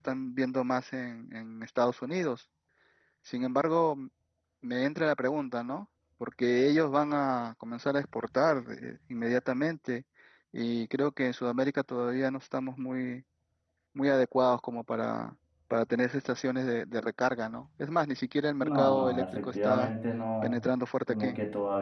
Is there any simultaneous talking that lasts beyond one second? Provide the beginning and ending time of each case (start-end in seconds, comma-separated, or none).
18.6-19.9